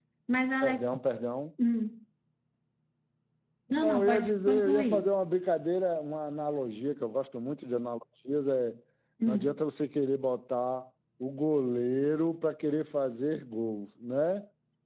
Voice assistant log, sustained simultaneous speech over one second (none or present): present